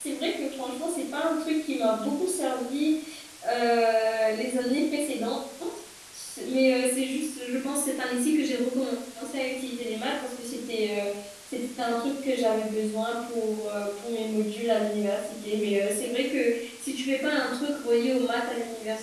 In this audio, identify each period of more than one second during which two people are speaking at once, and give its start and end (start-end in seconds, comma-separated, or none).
none